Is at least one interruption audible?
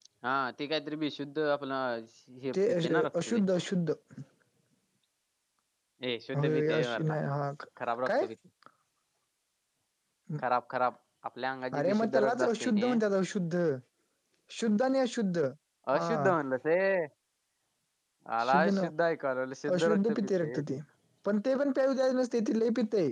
Yes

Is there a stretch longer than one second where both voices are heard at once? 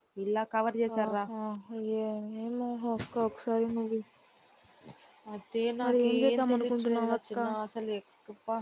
Yes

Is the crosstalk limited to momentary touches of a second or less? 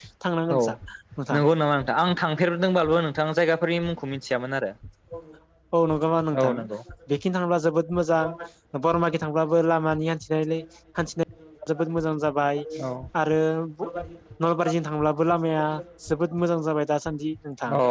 Yes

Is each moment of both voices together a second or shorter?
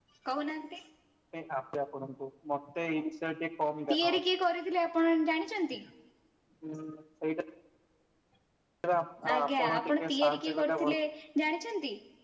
No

